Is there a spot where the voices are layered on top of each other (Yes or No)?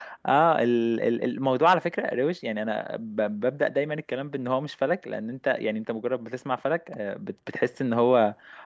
No